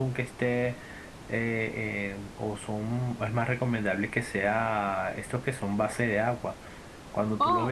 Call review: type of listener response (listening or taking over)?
listening